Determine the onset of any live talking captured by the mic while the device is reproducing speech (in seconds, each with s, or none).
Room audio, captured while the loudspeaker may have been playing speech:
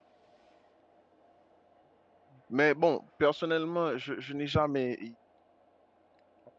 2.5 s